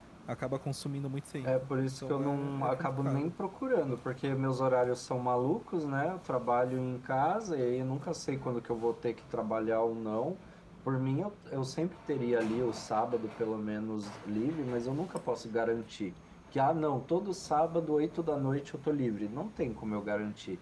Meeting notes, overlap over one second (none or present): present